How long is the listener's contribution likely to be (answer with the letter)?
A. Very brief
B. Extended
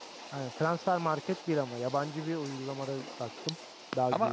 B